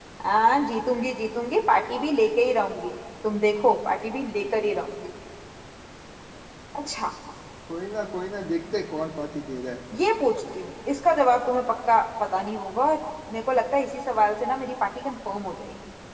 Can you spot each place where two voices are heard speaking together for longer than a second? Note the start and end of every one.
none

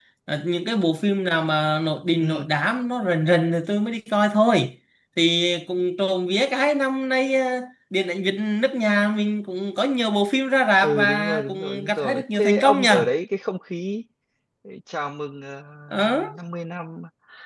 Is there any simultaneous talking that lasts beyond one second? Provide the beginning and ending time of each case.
10.8-13.1

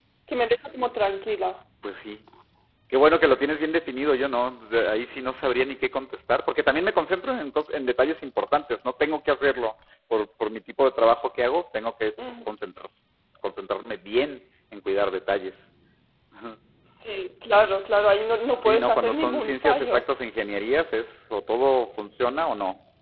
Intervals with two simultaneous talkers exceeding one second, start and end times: 18.6-20.0

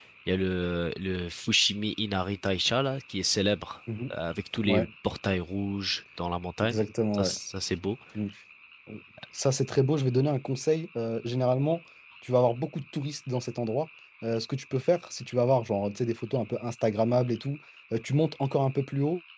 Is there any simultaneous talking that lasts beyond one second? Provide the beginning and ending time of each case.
none

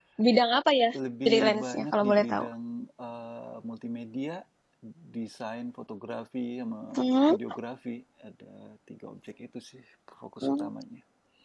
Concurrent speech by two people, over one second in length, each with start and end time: 1.2-2.5

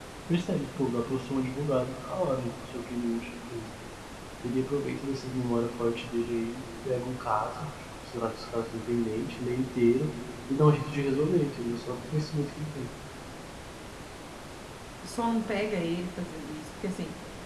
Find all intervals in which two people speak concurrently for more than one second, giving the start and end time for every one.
none

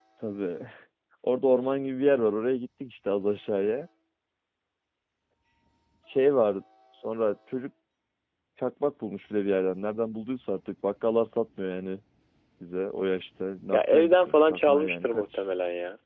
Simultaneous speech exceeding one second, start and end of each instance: 13.7-15.4

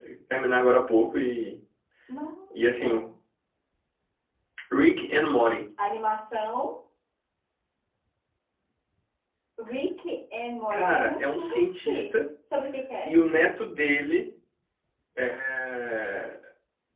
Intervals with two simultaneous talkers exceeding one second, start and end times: 10.7-12.1

